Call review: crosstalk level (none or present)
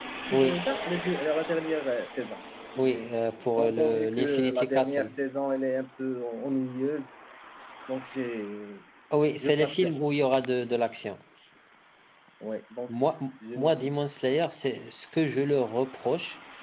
present